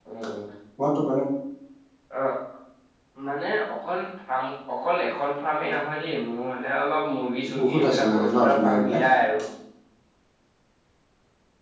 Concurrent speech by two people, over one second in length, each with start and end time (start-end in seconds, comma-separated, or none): 7.6-9.0